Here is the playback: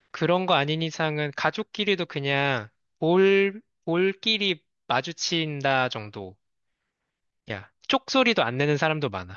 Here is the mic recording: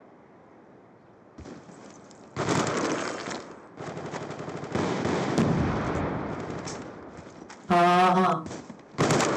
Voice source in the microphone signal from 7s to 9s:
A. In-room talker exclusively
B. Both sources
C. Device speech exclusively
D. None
A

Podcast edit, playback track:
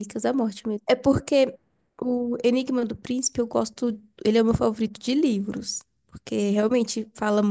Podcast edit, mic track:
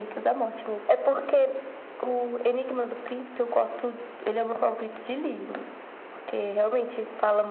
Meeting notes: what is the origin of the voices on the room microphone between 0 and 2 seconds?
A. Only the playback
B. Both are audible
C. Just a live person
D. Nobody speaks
A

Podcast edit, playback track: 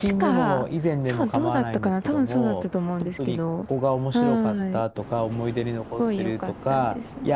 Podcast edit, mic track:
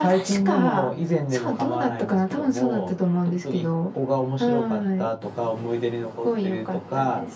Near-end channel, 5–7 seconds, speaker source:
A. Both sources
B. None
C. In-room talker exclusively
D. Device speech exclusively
D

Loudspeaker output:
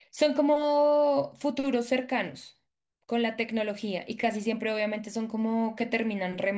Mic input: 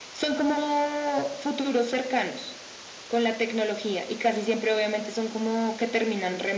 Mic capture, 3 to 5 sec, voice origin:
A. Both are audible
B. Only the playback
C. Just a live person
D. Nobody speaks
B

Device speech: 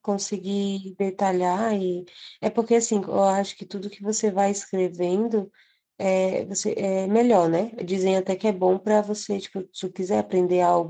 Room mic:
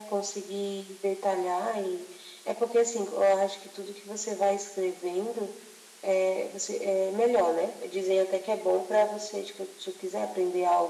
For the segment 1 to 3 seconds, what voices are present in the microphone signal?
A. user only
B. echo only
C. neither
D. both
B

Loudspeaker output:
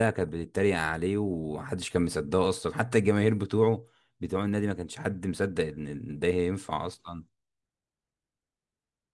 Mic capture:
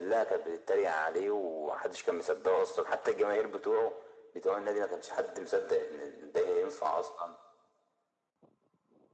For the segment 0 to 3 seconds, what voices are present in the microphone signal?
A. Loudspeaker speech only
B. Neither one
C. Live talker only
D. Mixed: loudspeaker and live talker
A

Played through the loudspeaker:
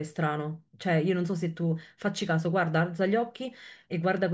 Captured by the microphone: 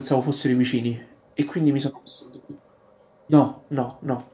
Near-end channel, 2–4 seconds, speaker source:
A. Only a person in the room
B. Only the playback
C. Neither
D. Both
A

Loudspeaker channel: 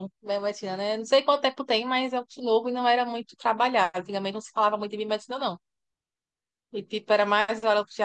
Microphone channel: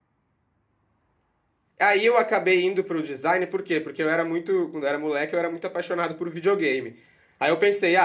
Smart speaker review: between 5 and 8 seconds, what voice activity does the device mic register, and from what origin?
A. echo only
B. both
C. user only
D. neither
C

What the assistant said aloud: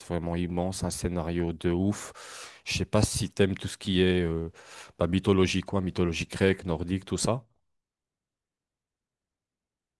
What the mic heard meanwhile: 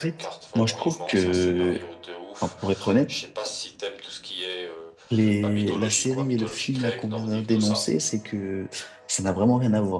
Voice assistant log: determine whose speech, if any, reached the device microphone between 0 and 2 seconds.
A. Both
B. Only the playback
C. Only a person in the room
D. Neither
A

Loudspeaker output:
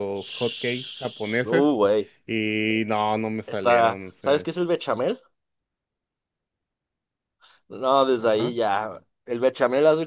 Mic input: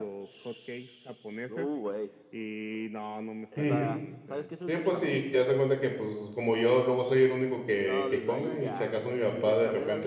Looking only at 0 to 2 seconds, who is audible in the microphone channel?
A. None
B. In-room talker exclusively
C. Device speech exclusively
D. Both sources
C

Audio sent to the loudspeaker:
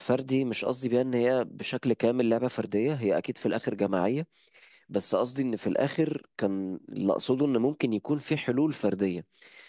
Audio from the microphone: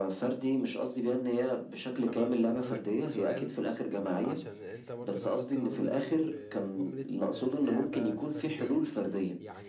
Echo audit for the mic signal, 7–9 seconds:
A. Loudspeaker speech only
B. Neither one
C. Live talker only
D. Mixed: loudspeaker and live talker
D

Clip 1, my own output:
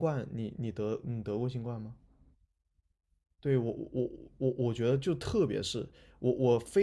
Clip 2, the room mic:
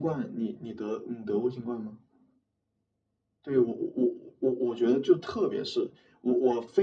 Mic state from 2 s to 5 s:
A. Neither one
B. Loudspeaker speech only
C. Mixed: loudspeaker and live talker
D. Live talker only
B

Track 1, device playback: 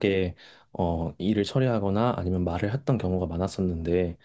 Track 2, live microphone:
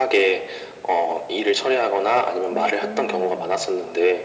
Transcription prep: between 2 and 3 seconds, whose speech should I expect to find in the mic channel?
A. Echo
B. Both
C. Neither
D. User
B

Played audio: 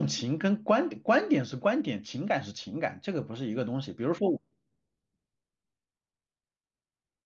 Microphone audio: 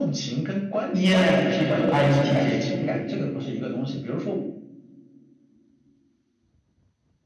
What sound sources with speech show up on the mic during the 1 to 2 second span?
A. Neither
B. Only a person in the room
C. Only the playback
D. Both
D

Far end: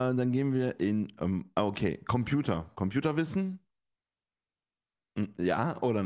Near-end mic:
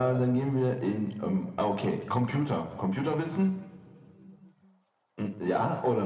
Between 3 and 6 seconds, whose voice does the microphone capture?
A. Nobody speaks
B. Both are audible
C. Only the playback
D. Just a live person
C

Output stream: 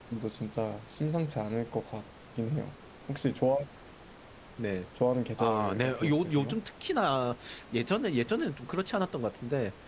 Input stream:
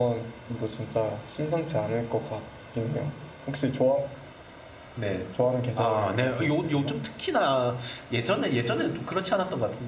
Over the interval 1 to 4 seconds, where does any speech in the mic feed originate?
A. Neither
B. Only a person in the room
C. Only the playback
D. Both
C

